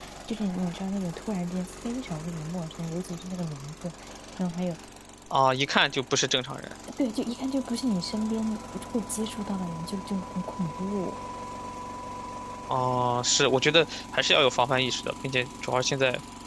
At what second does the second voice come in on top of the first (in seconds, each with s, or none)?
none